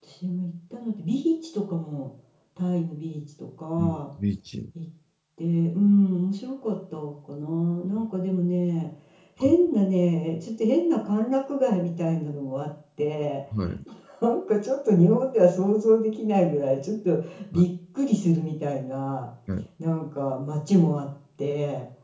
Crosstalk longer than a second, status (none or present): none